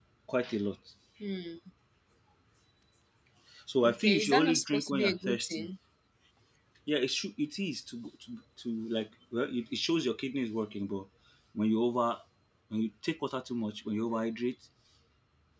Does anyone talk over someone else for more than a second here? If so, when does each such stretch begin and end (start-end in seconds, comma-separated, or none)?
3.8-5.7